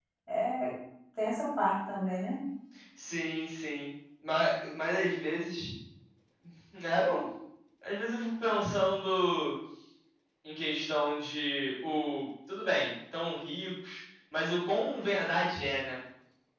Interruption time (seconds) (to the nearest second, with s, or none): none